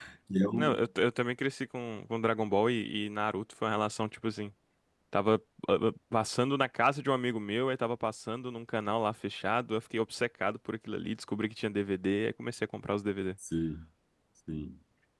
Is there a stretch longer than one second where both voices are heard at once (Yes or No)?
No